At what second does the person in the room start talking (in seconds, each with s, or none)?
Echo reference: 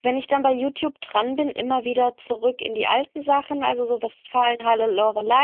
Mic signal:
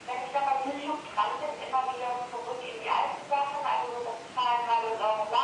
0.6 s